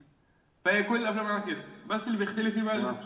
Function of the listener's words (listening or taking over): listening